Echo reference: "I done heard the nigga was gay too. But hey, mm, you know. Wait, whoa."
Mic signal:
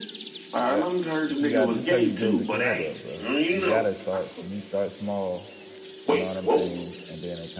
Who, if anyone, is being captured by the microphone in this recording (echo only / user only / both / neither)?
both